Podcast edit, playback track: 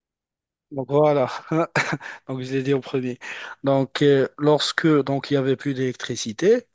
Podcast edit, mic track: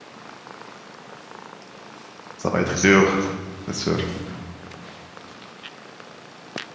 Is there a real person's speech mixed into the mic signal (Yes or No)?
Yes